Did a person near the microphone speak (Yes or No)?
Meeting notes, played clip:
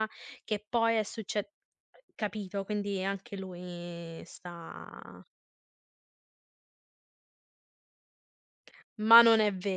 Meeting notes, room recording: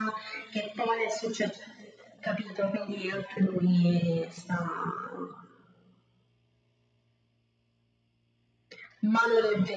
No